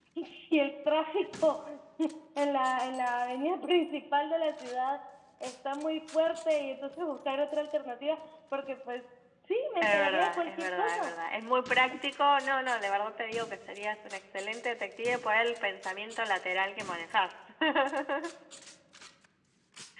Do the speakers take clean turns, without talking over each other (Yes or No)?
No